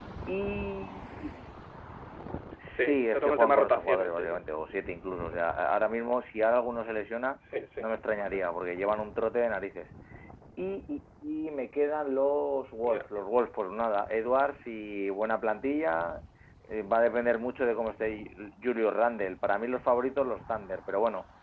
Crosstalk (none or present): present